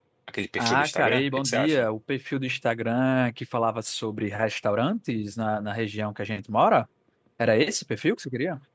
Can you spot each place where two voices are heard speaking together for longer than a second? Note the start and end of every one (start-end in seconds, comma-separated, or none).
0.6-1.9